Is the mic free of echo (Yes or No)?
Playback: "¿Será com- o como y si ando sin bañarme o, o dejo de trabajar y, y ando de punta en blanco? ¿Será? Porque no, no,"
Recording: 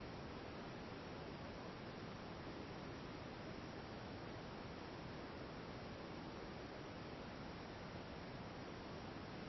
Yes